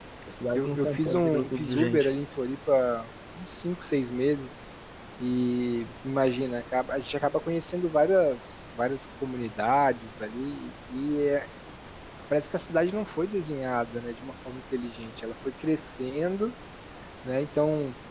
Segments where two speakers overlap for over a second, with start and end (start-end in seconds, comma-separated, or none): 0.5-2.1